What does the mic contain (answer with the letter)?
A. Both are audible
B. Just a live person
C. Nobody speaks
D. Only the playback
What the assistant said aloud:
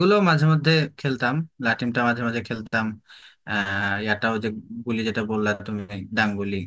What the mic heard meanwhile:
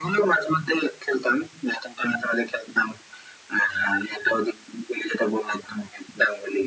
D